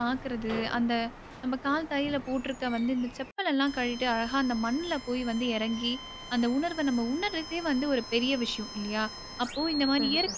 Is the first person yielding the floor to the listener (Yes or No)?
No